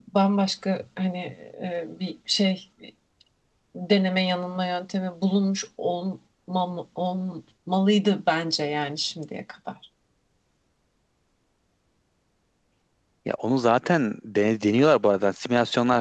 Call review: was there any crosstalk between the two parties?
No

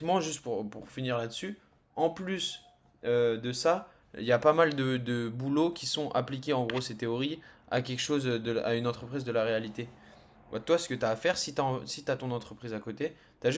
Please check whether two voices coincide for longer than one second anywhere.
No

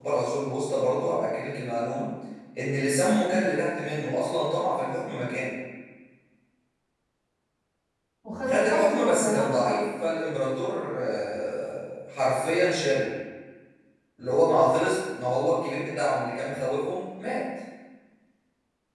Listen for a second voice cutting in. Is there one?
Yes, from 8.5 s

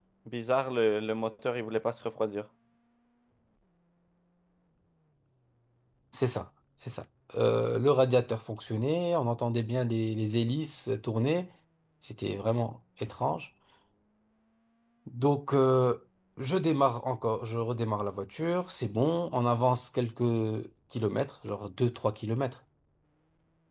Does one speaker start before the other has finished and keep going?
No

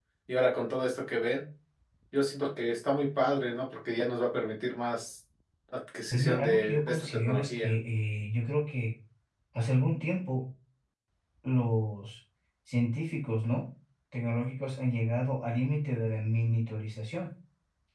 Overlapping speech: Yes, from 6.1 s

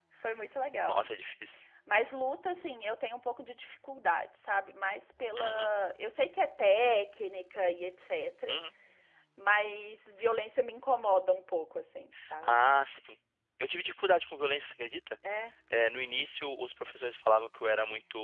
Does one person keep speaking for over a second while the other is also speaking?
No

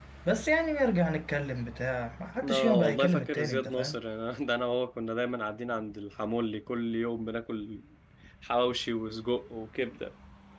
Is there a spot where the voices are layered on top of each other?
Yes, from 2.4 s

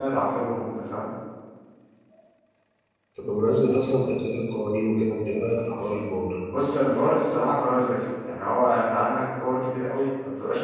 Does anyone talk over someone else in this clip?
No

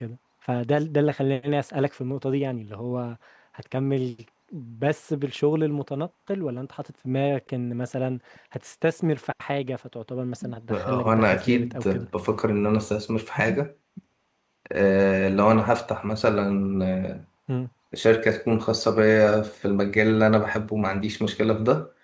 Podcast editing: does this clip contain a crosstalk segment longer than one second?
Yes, from 10.7 s

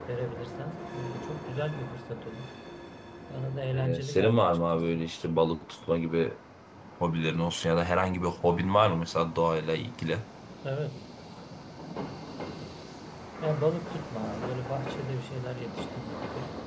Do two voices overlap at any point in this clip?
Yes, from 3.7 s

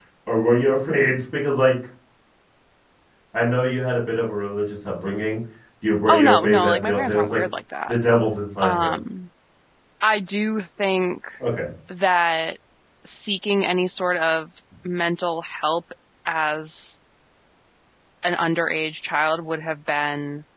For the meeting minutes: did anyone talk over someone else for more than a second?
Yes, from 6.1 s

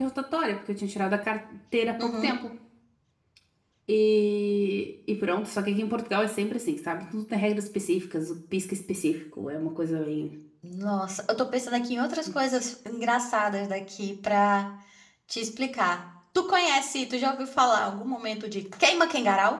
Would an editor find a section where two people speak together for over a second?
No

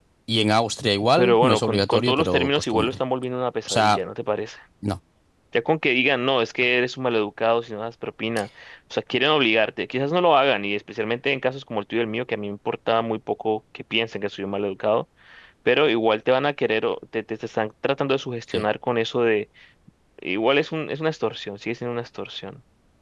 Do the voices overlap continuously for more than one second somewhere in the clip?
Yes, from 1.2 s

